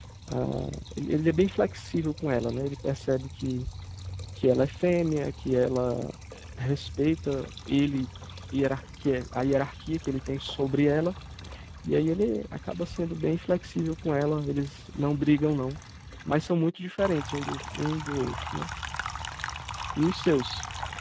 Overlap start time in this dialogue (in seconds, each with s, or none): none